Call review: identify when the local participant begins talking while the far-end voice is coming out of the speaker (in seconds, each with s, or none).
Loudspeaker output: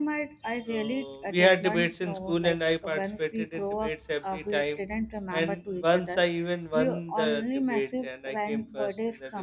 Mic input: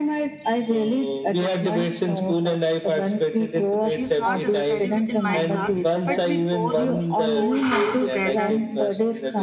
3.9 s